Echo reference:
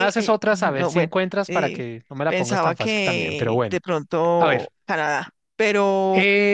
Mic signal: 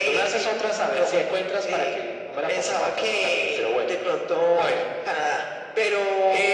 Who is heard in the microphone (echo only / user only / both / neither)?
echo only